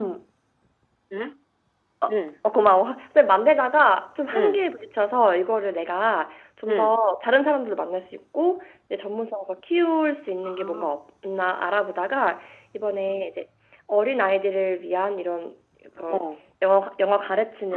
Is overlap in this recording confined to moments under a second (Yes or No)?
Yes